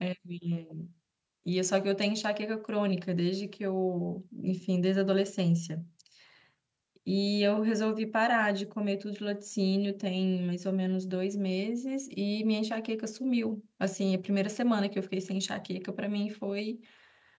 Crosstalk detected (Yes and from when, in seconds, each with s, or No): No